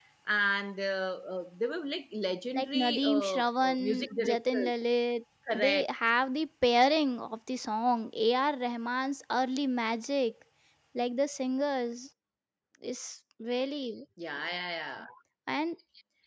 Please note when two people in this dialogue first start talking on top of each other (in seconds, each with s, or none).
2.5 s